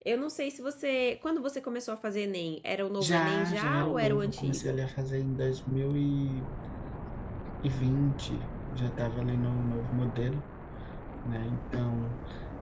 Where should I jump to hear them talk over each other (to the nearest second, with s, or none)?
3 s